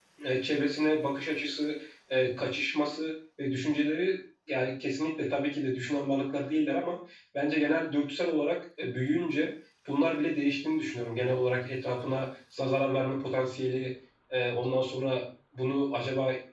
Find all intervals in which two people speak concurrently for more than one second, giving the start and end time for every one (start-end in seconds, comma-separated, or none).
none